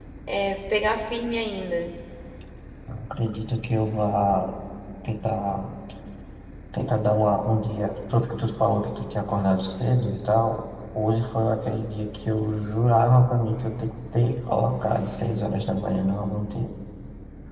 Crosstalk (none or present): none